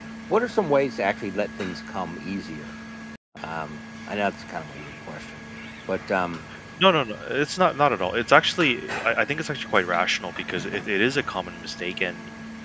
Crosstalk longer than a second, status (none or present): none